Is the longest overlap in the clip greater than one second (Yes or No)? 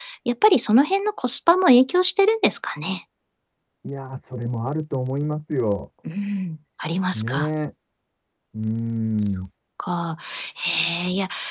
No